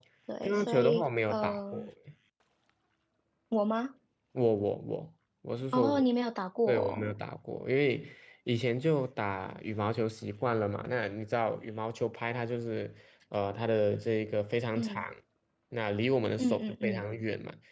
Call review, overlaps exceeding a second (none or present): present